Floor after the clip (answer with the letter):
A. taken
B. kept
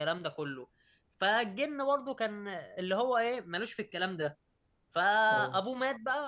B